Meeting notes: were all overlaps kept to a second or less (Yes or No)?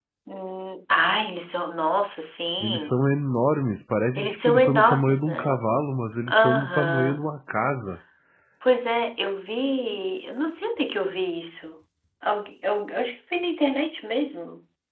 No